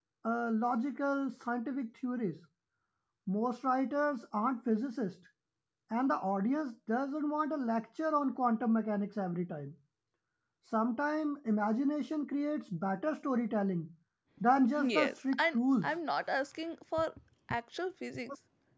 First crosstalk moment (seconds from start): 14.7 s

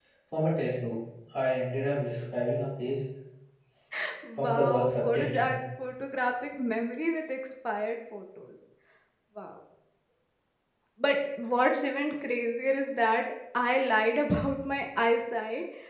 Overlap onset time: 4.4 s

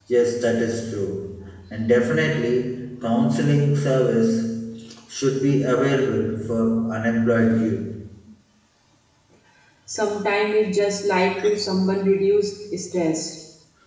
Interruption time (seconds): none

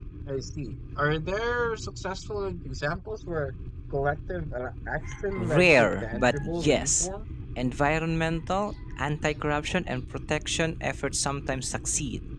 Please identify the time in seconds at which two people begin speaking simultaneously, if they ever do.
5.4 s

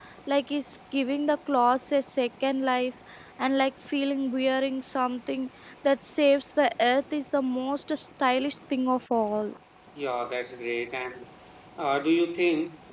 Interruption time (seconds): none

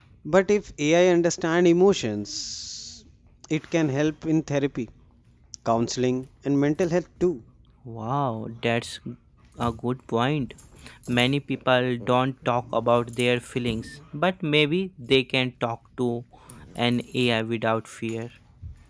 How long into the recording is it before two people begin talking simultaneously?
none

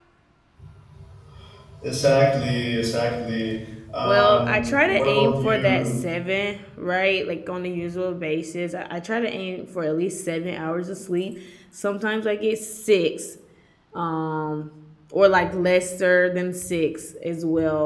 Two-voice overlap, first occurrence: 4.0 s

